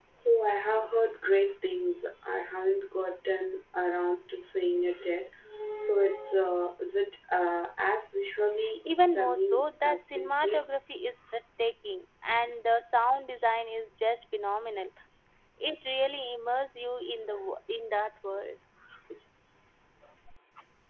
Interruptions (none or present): present